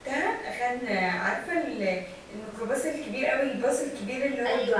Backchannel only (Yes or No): No